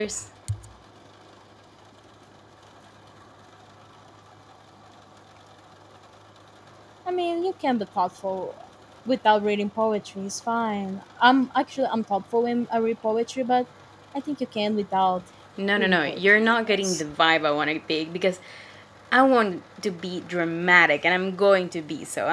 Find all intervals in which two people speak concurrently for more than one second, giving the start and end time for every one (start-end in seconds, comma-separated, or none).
15.8-17.0